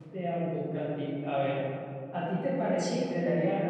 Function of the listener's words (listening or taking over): listening